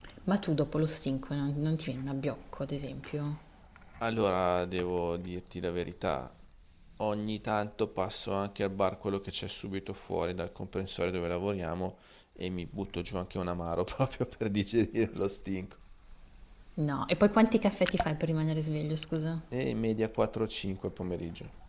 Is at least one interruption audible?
No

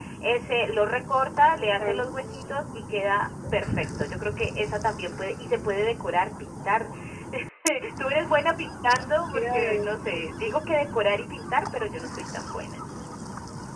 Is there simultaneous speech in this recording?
Yes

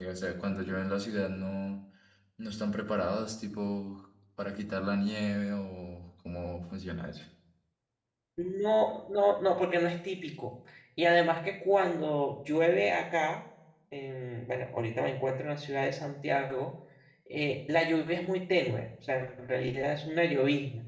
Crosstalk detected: No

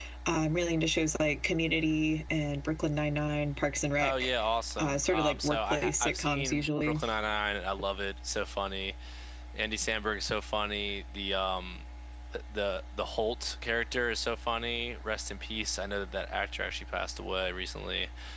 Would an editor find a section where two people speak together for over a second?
Yes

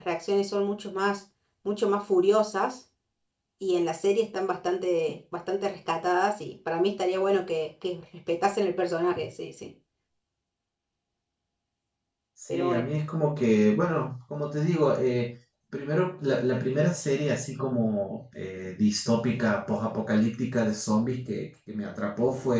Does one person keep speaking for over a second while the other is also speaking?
No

